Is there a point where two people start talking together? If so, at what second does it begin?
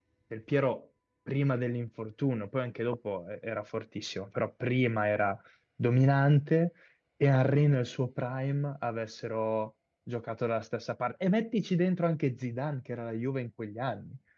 none

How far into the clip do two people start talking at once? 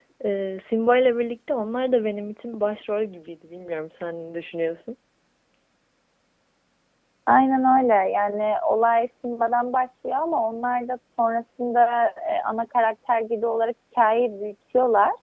none

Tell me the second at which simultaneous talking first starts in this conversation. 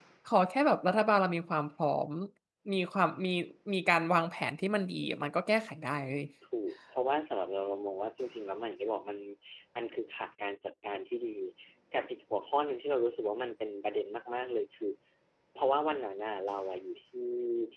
none

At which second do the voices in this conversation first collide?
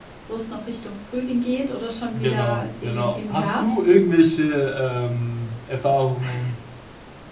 2.1 s

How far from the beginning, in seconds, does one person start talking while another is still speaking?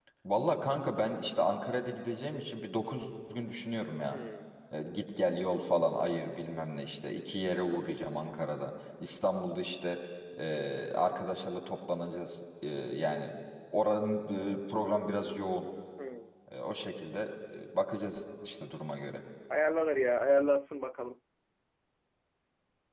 none

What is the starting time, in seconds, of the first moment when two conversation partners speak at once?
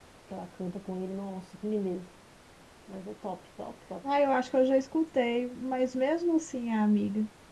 none

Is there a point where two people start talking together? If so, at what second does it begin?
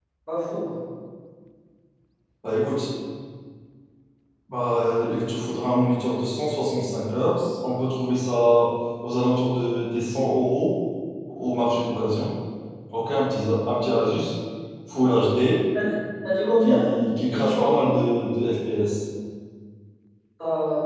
16.6 s

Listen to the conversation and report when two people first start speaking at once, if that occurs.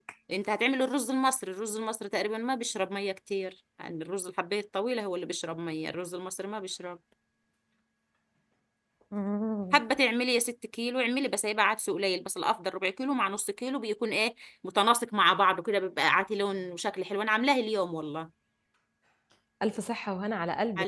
none

